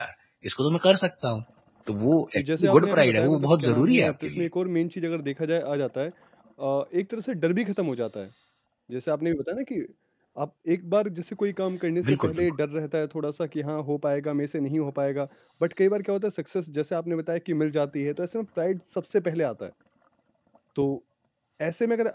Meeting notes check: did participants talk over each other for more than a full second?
Yes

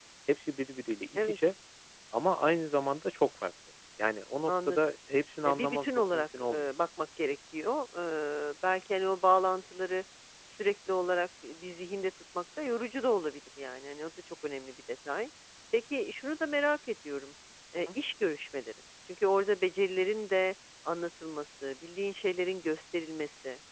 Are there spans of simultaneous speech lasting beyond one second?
Yes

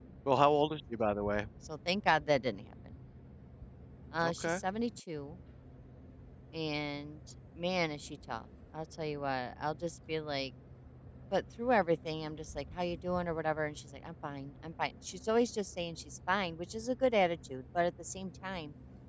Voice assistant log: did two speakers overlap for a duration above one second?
No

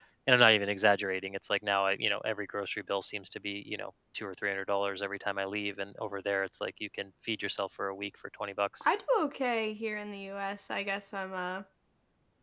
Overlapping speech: No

